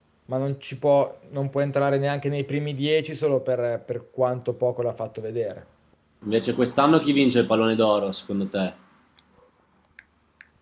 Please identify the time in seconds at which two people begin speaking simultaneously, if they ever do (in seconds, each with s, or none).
none